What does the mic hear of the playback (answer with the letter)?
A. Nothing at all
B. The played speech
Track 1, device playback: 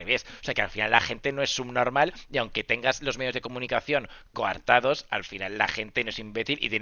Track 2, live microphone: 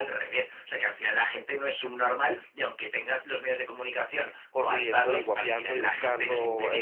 B